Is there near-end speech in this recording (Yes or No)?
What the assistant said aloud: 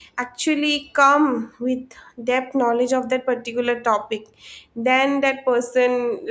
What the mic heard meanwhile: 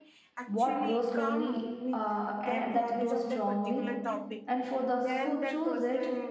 Yes